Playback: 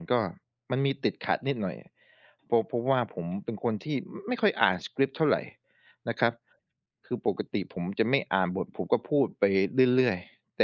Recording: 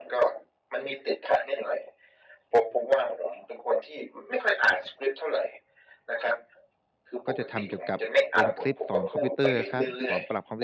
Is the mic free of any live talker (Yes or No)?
No